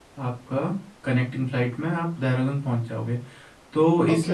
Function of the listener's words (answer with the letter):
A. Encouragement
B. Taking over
A